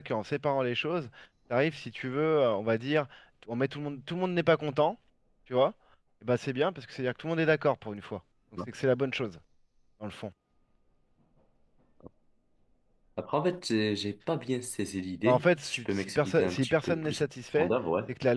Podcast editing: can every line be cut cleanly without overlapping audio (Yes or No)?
No